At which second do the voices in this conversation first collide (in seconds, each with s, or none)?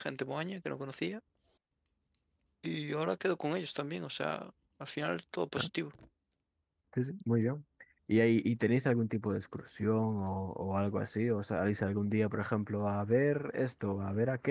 none